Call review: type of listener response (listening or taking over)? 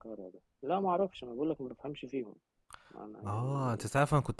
taking over